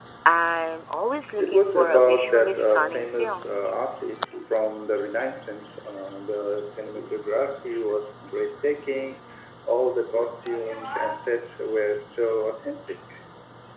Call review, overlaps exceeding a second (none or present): present